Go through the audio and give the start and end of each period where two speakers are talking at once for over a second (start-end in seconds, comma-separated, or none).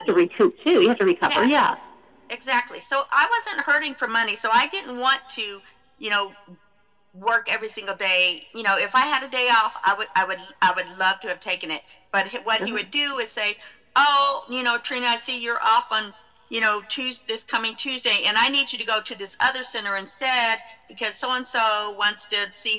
none